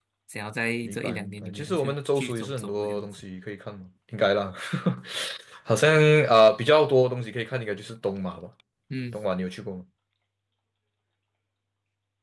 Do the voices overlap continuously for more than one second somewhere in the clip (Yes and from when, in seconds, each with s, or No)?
Yes, from 0.8 s